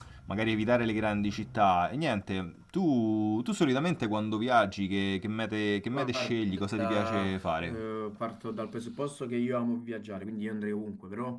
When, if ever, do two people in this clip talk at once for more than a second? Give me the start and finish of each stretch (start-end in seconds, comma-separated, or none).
5.9-7.8